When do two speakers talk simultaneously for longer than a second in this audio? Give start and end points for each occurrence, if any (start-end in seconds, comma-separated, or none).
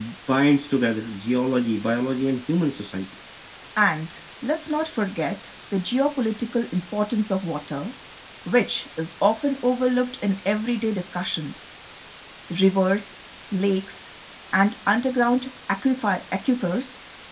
none